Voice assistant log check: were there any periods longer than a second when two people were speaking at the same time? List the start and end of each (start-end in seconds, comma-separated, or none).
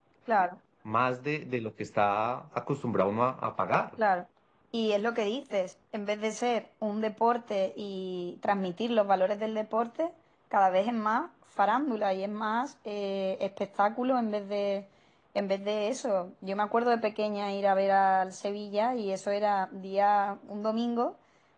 none